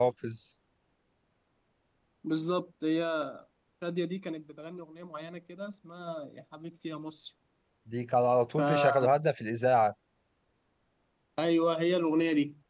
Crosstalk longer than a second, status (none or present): none